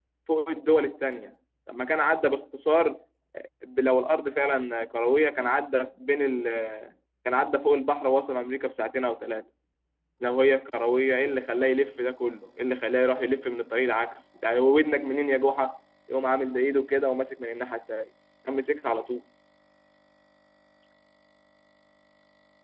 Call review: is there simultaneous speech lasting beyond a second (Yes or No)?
No